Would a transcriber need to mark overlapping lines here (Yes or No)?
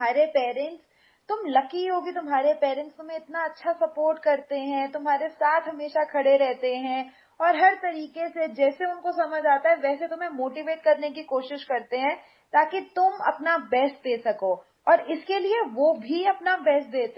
No